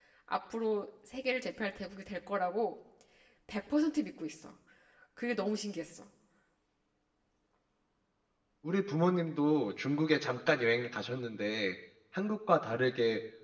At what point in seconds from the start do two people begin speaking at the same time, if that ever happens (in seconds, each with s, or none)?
none